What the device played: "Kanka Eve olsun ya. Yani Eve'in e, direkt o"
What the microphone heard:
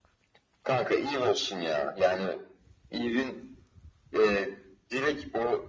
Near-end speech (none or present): none